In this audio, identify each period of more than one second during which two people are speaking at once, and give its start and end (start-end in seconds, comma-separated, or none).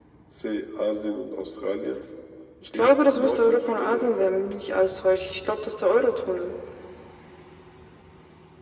2.7-4.3